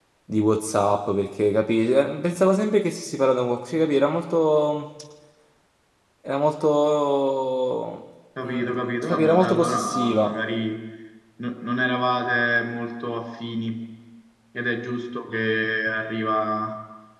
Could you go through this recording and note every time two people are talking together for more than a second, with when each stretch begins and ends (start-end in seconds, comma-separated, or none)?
8.4-10.4